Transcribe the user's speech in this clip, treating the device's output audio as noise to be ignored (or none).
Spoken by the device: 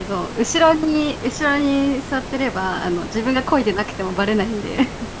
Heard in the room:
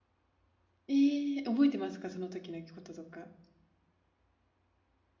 ええ、覚えてますか？その時のこととか。